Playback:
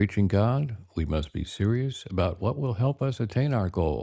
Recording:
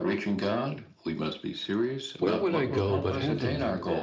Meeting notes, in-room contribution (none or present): present